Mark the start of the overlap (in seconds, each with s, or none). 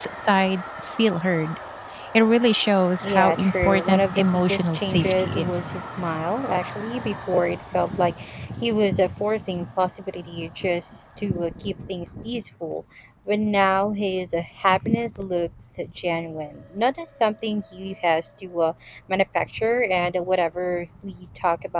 3.0 s